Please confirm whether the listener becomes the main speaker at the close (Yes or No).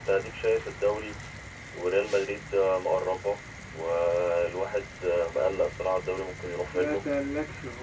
Yes